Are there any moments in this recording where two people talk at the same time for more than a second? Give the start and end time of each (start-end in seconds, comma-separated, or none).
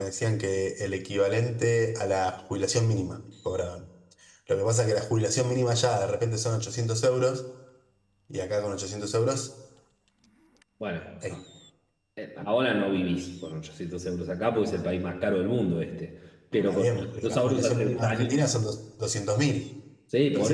16.7-18.3